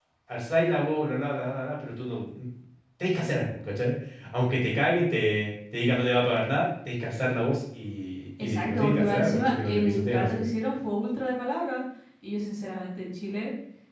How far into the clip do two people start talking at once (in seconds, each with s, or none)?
8.4 s